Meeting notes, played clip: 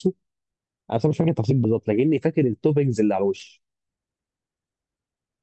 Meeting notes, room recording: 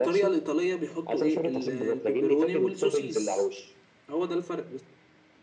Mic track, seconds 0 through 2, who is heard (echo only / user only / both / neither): both